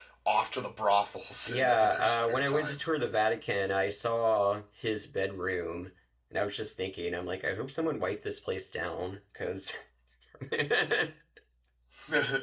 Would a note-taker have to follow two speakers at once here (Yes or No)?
Yes